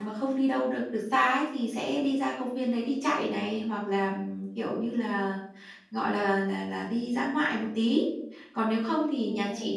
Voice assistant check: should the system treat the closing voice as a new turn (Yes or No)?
No